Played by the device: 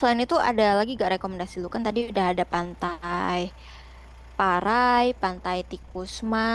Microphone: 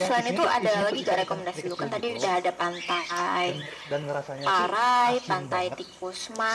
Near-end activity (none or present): present